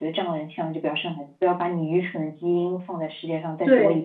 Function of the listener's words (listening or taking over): taking over